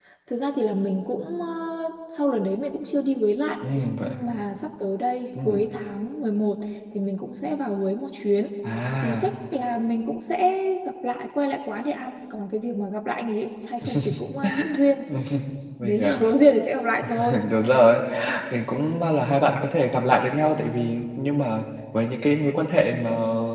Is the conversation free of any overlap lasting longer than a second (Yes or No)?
Yes